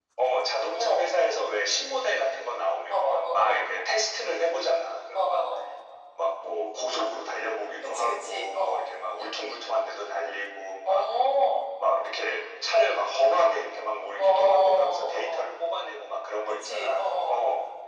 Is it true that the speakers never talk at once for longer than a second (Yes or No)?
No